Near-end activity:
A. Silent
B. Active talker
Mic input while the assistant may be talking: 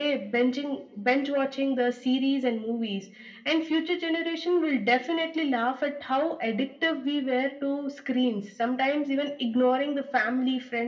A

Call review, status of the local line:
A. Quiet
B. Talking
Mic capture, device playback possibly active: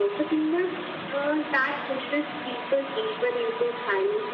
A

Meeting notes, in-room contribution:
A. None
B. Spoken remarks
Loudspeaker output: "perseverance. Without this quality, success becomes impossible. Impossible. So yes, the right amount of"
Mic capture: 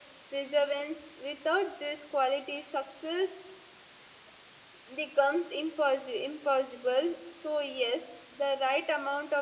A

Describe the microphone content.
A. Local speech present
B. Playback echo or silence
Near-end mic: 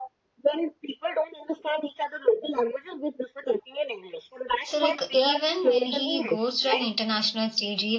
A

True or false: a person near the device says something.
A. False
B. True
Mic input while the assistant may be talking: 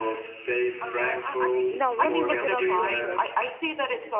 B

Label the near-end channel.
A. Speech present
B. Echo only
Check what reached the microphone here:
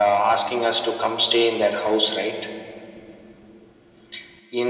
B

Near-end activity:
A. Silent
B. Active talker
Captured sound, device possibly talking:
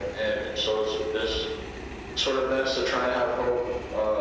A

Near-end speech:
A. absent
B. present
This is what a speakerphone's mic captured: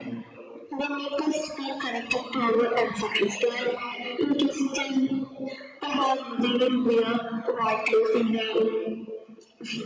A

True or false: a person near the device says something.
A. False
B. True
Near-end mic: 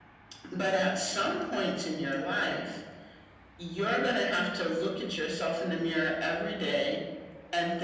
A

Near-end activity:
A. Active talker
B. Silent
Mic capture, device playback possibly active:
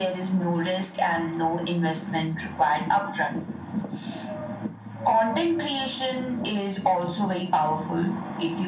B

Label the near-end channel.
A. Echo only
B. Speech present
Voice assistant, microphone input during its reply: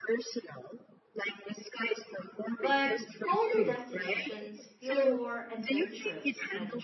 B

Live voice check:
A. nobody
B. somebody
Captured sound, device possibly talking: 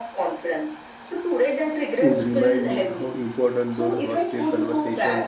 B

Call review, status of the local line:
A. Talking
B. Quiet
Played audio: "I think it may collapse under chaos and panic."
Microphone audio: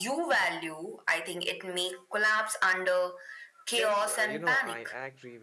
A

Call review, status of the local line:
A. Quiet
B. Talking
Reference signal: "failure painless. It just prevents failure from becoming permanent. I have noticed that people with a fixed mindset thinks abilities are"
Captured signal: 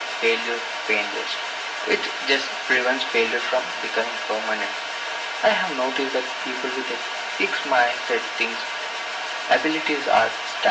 A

